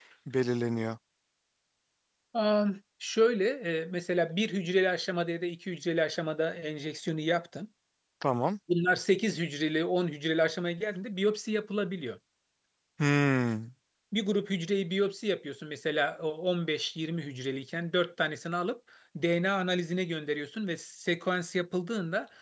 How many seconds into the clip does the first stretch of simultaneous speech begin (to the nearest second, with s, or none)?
none